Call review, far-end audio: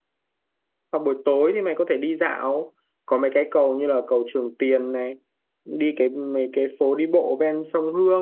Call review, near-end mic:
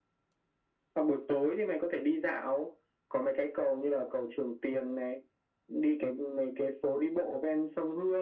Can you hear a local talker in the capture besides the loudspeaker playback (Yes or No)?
No